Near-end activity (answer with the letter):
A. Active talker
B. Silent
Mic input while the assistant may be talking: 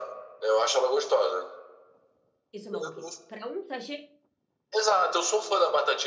A